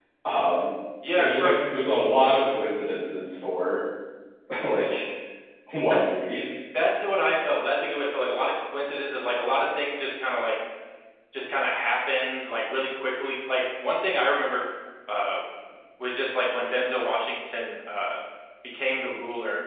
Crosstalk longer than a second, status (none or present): none